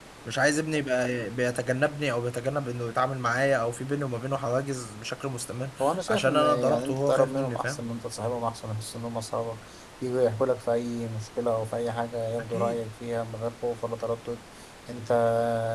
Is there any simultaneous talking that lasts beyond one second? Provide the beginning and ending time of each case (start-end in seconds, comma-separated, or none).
6.1-7.8